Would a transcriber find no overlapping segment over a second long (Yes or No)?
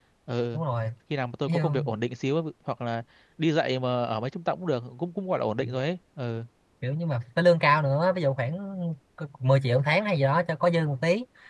Yes